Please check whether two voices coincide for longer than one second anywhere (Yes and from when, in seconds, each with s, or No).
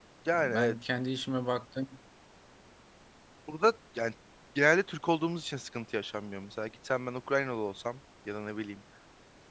No